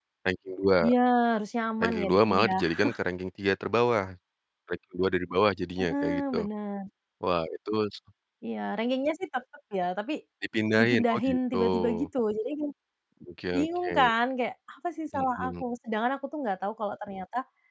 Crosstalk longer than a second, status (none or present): present